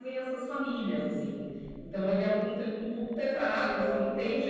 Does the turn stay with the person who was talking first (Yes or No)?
Yes